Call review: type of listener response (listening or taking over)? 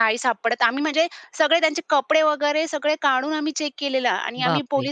listening